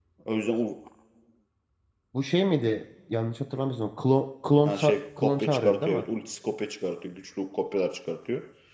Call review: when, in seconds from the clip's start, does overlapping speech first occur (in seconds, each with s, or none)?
4.7 s